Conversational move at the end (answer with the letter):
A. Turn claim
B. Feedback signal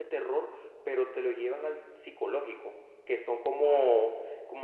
B